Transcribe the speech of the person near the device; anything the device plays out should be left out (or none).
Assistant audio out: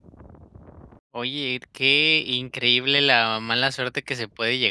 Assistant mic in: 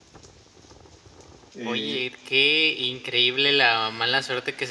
eh